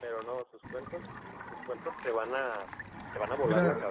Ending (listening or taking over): taking over